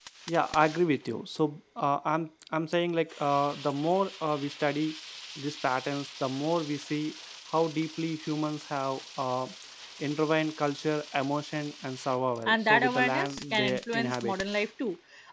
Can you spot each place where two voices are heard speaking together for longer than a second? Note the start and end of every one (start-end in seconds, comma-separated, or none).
12.5-14.3